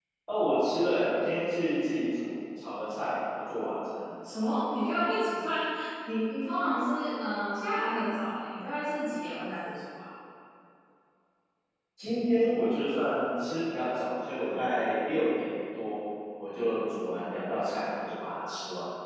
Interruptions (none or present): none